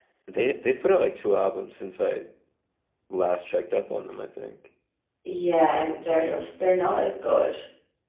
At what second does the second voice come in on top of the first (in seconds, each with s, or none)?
none